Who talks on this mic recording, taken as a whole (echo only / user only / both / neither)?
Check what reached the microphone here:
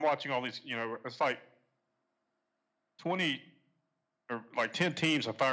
echo only